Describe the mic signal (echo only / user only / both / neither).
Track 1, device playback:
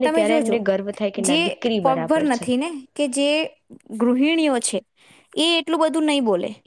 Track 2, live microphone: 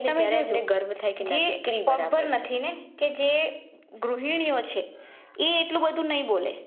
echo only